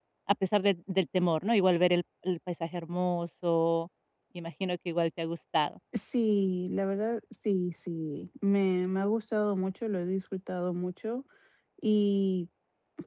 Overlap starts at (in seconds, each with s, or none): none